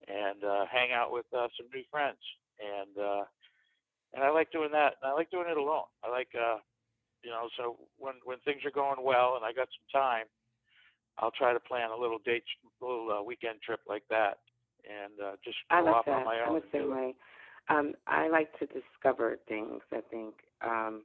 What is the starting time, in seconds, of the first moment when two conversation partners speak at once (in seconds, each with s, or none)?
15.7 s